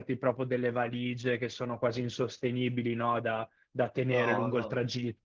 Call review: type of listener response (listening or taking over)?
listening